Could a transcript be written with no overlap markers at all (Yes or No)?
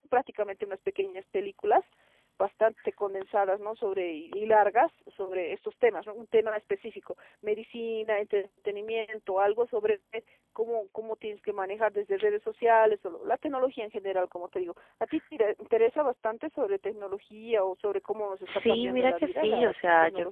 No